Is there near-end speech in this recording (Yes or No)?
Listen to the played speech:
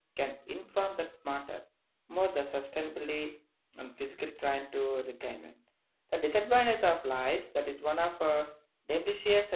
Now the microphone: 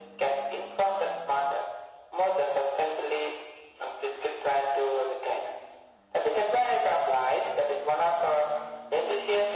No